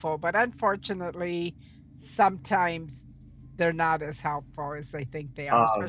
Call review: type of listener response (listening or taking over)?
listening